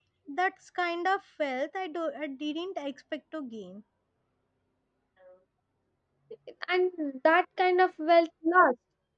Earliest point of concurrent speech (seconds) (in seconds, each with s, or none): none